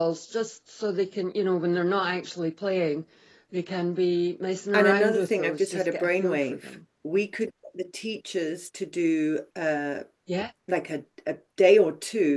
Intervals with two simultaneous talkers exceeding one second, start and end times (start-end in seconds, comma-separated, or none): 4.7-6.6